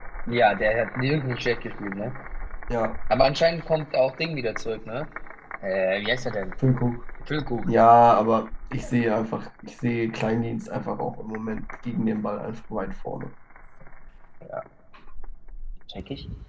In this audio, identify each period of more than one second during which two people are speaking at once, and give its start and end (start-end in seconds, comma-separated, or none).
none